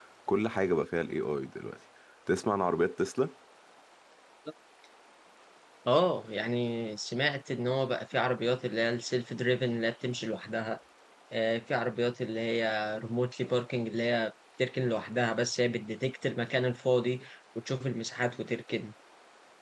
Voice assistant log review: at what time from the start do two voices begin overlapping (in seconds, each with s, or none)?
none